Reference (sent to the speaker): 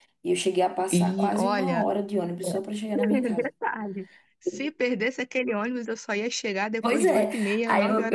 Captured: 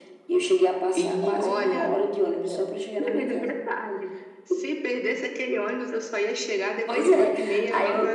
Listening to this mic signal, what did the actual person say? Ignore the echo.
none

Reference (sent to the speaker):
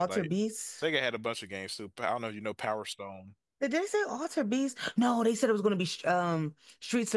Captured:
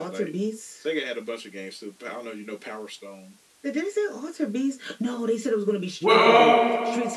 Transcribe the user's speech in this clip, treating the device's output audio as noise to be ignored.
Well, um,

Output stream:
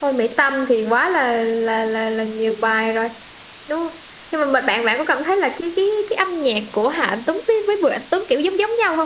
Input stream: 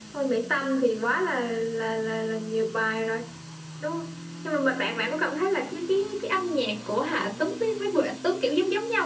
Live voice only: none

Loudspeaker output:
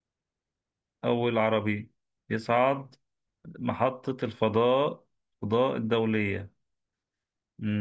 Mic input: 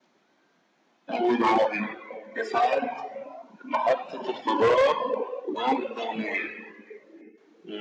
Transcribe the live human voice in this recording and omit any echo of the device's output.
none

